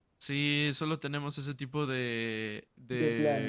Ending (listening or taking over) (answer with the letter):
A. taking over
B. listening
B